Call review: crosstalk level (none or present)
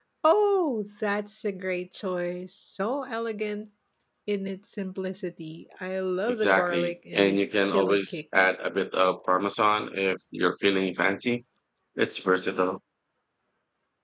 present